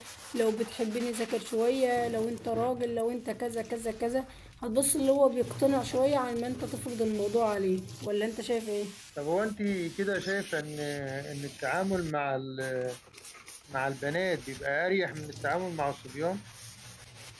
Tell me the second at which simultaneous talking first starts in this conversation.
none

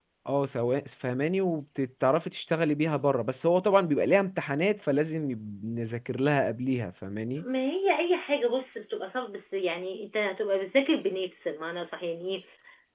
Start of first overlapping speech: none

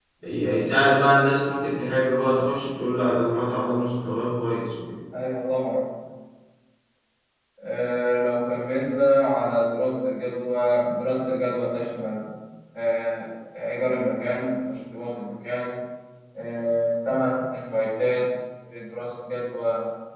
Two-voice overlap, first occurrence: none

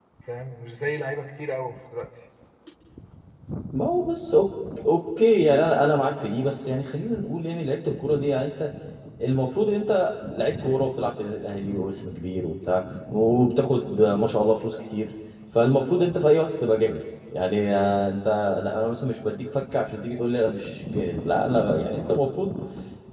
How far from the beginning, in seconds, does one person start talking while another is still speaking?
none

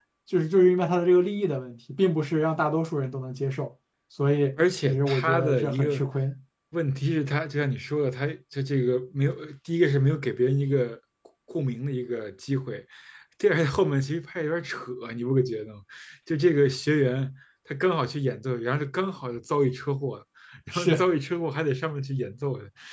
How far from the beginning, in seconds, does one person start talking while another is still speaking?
4.8 s

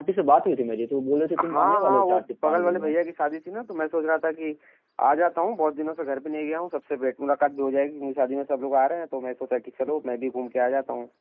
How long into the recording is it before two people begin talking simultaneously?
1.4 s

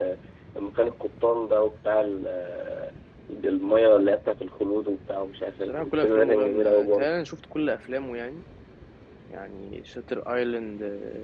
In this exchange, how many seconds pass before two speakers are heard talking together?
5.7 s

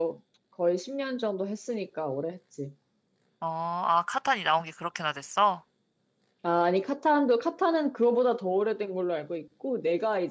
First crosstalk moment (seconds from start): none

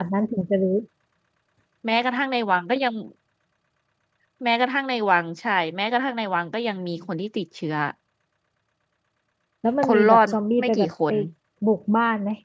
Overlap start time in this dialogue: 9.8 s

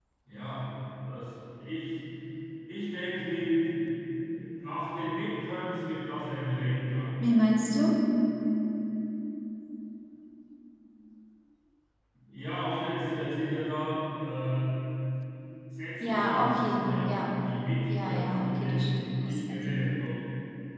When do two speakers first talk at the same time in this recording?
16.0 s

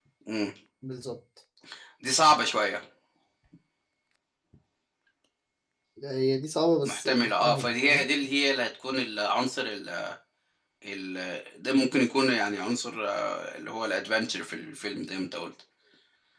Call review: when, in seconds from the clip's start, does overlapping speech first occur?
6.8 s

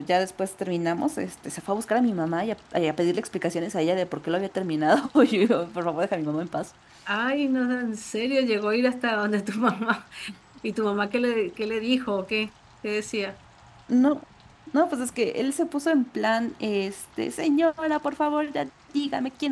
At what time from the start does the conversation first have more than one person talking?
none

